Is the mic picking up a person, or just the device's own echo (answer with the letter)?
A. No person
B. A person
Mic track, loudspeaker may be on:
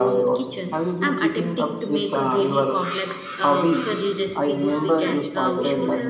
B